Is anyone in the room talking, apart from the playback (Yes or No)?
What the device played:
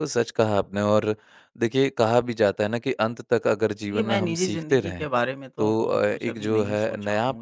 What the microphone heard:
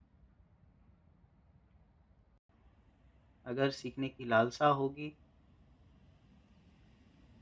Yes